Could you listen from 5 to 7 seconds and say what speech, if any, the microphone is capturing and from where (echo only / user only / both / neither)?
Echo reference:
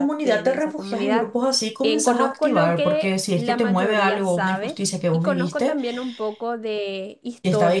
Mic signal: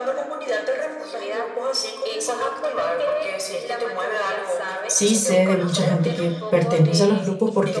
both